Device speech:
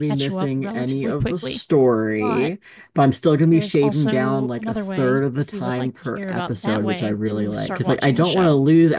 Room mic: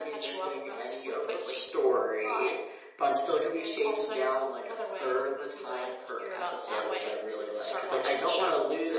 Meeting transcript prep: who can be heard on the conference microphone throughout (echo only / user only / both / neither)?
echo only